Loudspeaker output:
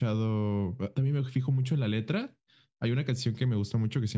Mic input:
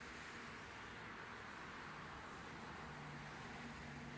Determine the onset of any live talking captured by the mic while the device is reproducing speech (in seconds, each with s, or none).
none